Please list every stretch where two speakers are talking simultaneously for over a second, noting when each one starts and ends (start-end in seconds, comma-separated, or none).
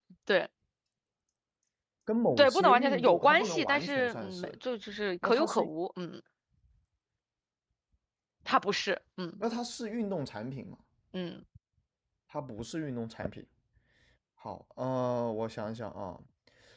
2.4-4.5